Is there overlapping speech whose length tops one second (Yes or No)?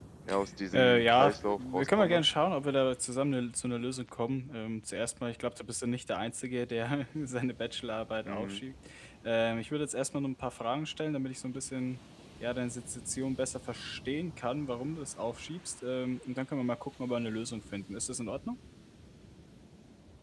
Yes